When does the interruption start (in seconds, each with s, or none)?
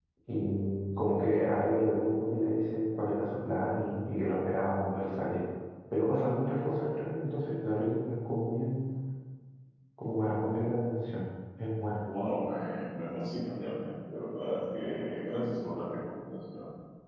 none